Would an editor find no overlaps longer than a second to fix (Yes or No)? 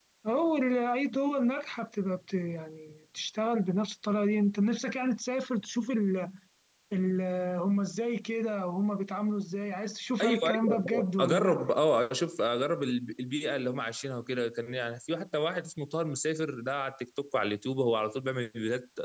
No